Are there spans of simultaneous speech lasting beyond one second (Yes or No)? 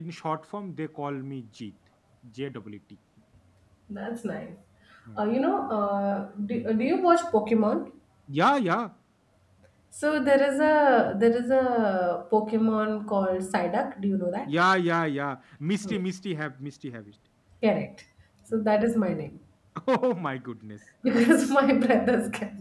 No